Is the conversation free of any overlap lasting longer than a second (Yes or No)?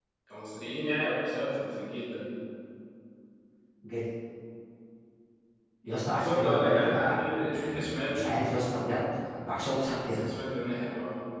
No